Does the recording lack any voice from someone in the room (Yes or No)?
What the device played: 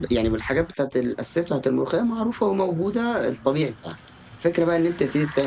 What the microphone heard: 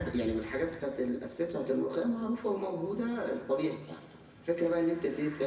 Yes